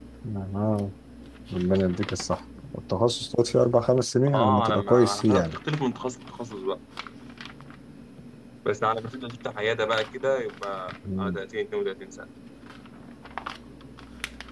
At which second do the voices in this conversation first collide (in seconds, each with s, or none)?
4.3 s